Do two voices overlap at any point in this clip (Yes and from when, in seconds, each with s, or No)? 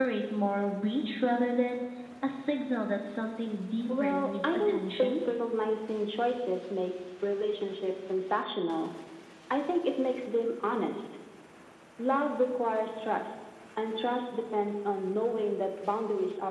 Yes, from 3.9 s